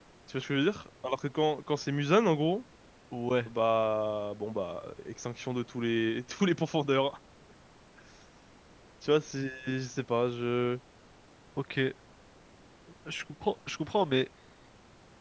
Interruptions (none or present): none